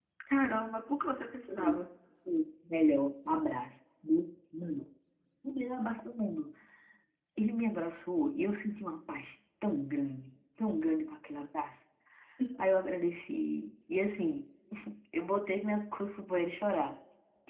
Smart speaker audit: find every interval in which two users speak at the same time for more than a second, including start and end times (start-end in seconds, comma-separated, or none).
none